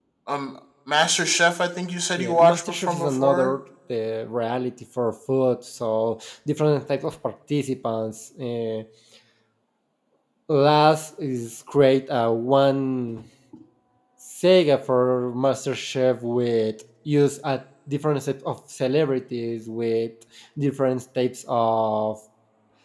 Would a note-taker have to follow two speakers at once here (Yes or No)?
Yes